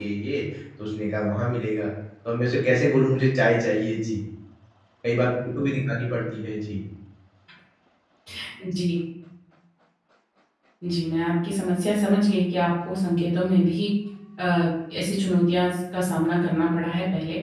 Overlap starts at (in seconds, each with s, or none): none